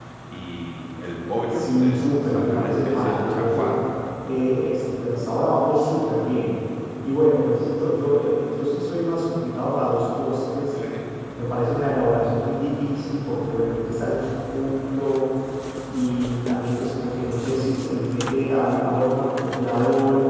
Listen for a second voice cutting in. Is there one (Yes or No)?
Yes